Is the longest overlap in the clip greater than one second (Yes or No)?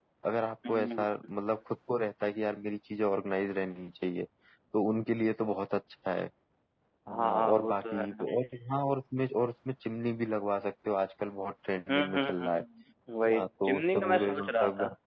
Yes